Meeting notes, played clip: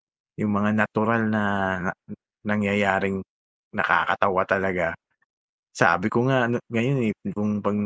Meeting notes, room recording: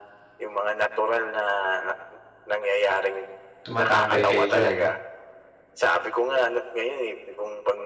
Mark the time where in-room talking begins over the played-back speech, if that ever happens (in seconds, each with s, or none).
3.6 s